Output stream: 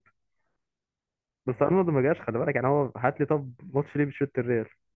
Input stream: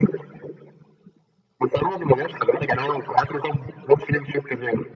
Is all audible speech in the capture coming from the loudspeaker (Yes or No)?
Yes